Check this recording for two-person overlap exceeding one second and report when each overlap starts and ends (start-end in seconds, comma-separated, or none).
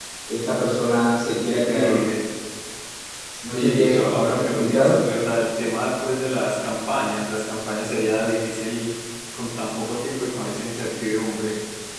3.5-4.9